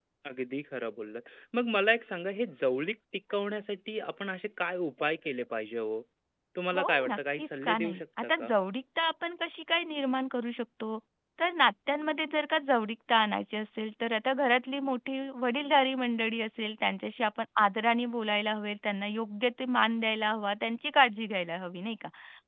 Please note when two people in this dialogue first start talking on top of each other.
7 s

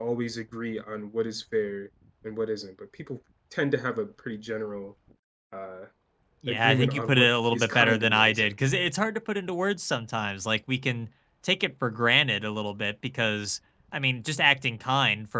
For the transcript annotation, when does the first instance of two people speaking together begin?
6 s

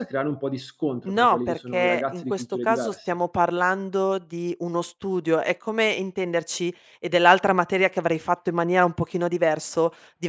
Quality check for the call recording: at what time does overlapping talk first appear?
1 s

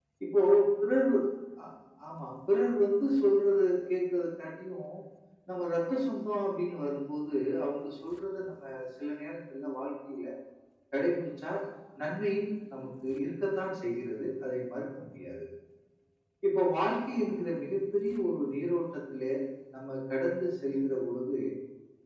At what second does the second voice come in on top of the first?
none

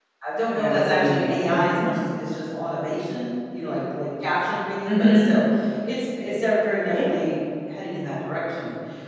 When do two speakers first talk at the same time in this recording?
1 s

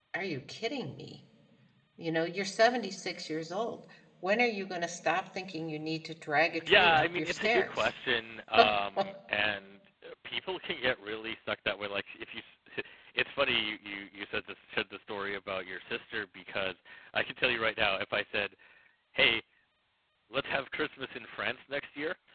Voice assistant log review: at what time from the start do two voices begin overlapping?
7 s

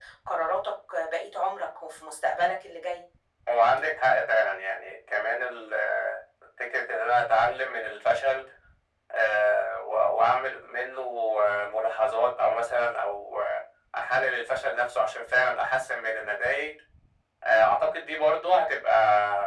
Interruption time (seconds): none

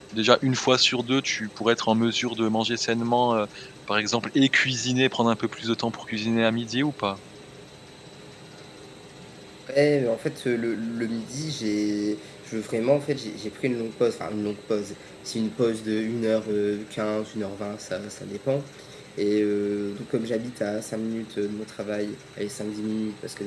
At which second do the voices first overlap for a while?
none

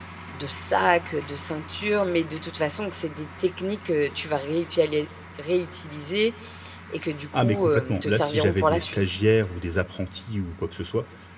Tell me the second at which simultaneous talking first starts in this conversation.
7 s

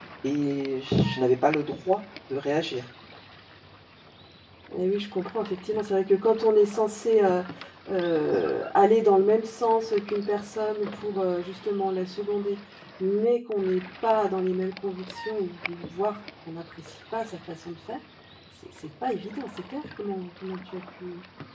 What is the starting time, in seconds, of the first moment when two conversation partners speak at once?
none

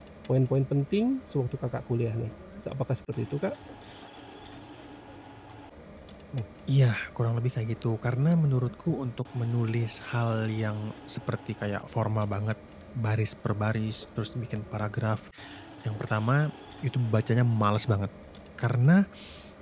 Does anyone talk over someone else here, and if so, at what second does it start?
none

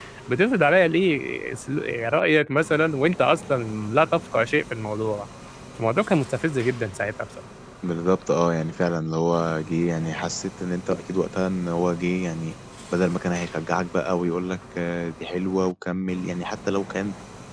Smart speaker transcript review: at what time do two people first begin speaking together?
none

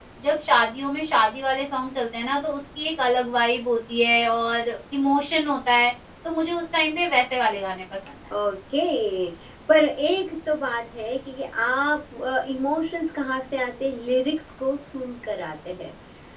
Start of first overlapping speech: none

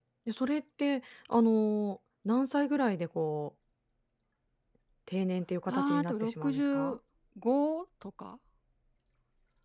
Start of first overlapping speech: 6 s

